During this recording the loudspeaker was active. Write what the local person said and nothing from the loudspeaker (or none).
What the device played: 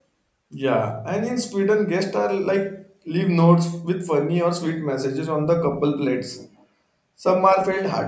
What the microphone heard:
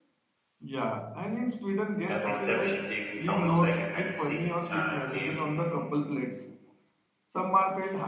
Every step she takes sounds like a fantasy uh, game